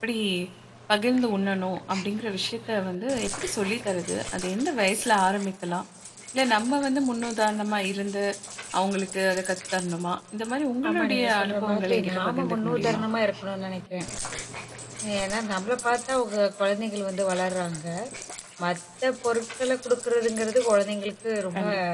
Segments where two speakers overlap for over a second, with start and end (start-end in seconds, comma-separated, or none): 10.9-13.0